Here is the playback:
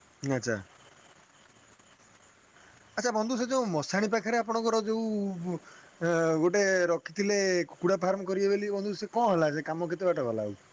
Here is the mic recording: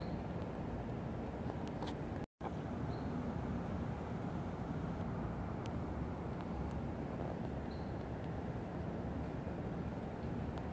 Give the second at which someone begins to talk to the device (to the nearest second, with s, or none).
none